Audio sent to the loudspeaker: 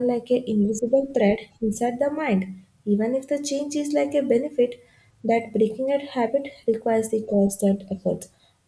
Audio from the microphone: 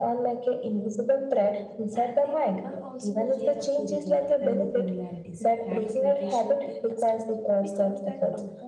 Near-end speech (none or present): present